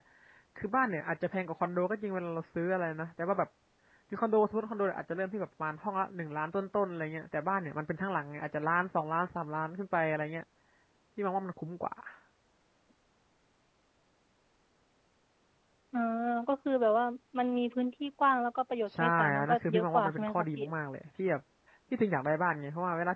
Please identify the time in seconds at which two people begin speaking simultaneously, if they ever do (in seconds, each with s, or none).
18.9 s